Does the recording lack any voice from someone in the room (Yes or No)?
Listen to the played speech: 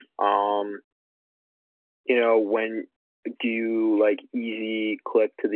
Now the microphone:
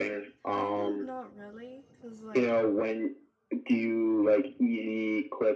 No